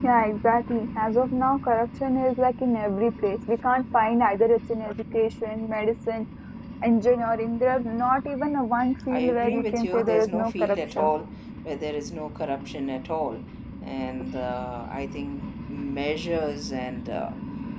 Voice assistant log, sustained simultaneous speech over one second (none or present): present